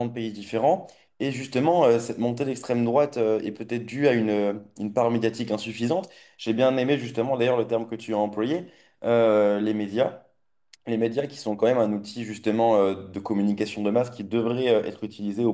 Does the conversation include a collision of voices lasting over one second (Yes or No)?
No